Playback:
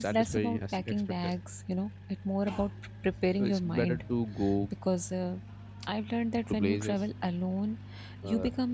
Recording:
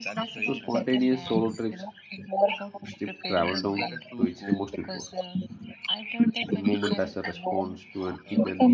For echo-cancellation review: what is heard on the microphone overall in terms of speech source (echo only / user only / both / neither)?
both